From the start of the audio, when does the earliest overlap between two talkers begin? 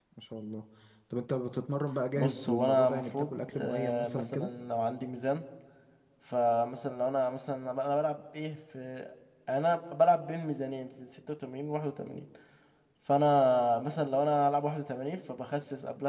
2.1 s

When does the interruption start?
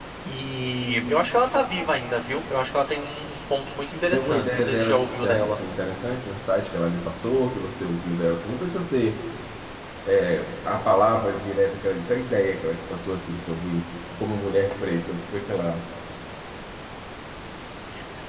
4.1 s

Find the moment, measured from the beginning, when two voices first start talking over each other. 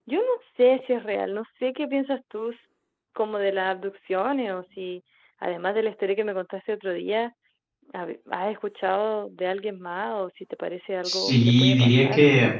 11.0 s

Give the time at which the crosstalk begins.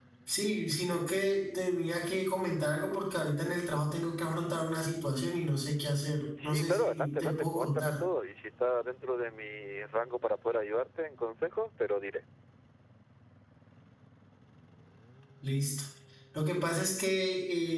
6.4 s

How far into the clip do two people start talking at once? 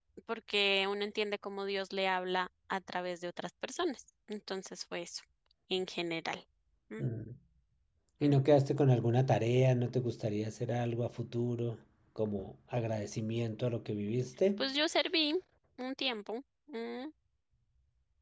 none

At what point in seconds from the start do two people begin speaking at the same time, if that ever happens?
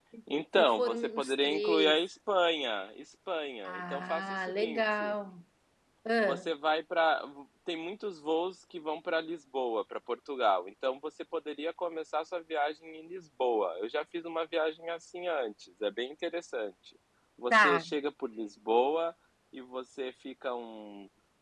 0.6 s

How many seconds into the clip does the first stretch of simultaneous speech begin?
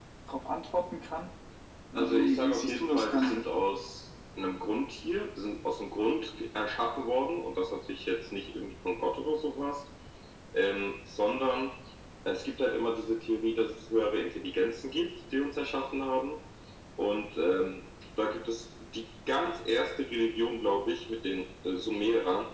1.9 s

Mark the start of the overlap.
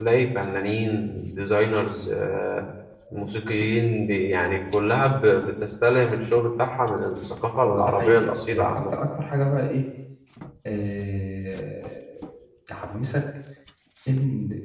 7.6 s

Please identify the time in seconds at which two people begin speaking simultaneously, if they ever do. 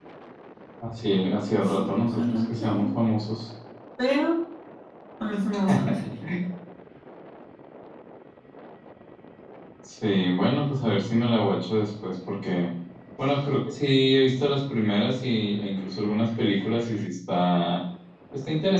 1.5 s

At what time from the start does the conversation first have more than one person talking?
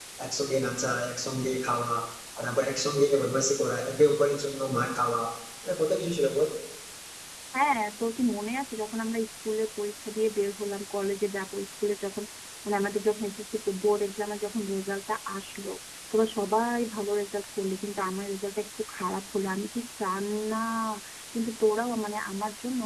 none

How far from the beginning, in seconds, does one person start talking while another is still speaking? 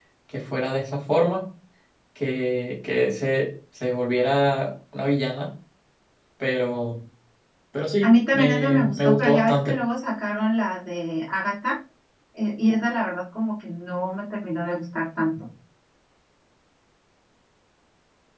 8.0 s

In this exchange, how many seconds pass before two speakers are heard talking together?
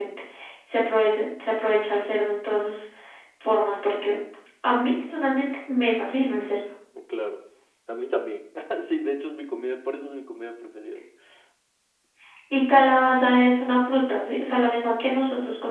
none

